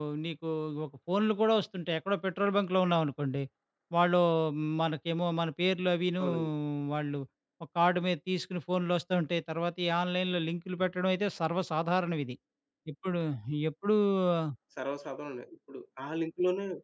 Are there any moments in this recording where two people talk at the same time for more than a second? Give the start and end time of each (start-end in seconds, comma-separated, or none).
none